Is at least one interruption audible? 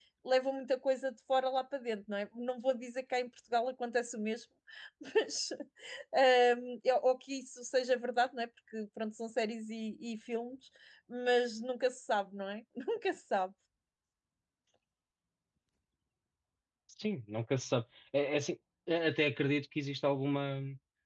No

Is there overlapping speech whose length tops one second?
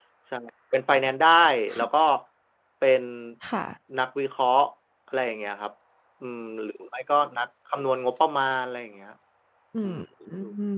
No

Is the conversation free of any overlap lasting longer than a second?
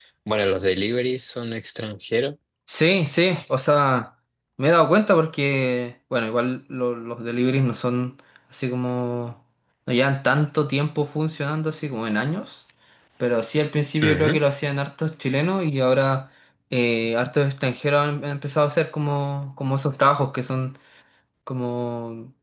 Yes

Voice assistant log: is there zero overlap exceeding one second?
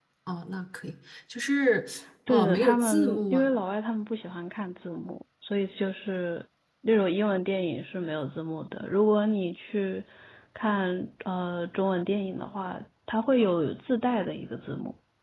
No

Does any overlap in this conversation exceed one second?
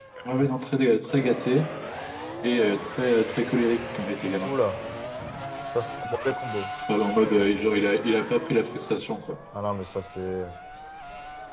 No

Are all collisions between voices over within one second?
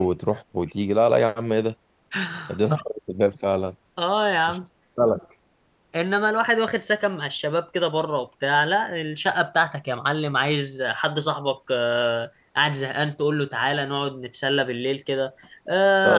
Yes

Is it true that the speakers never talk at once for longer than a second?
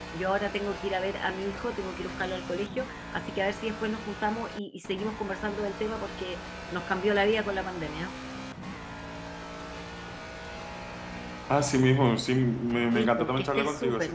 No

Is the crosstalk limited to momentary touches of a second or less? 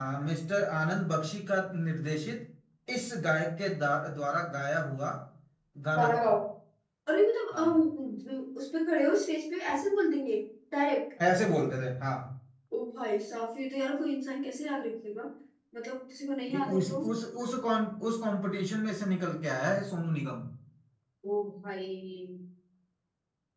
Yes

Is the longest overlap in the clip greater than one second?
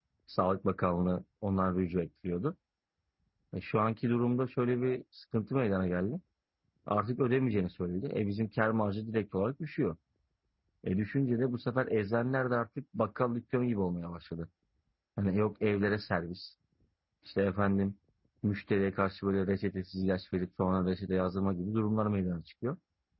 No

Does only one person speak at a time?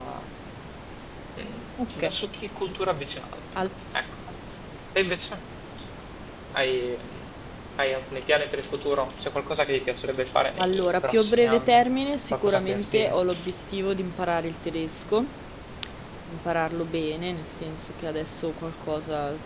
No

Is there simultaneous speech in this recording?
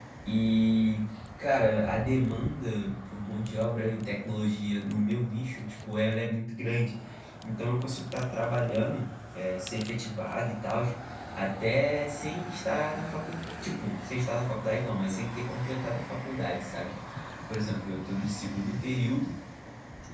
No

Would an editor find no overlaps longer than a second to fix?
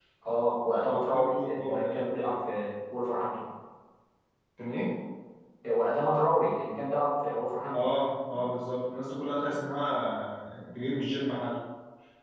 No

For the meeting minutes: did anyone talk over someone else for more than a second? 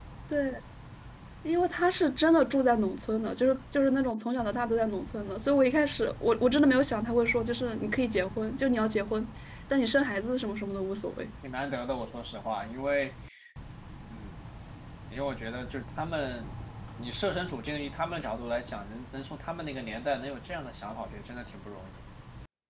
No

